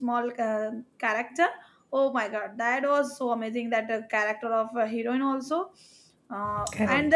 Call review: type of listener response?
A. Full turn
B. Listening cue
B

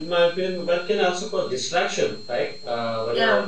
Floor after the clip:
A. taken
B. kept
B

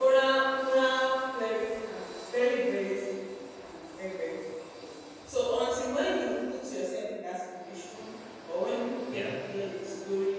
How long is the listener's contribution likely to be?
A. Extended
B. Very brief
B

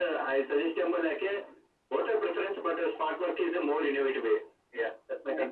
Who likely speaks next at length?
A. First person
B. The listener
B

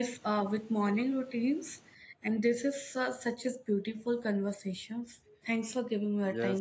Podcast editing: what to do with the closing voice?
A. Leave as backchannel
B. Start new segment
B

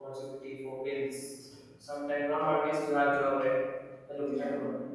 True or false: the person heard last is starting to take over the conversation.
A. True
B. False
B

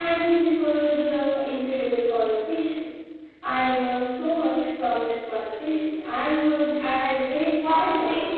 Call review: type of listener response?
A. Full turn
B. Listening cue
A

